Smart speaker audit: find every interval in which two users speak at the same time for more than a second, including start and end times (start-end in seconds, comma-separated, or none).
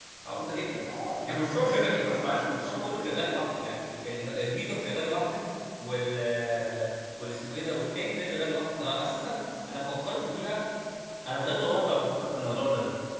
1.3-2.8